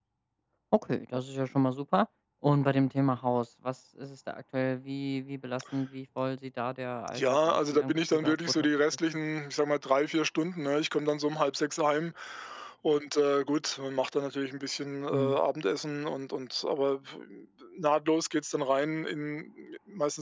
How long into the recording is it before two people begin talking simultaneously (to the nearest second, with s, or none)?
7 s